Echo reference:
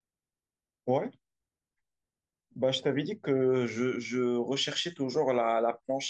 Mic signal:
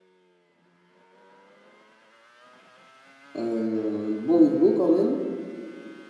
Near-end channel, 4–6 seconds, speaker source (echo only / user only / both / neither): user only